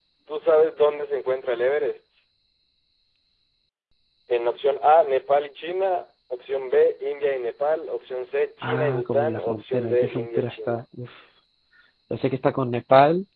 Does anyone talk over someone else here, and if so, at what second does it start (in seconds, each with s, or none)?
8.6 s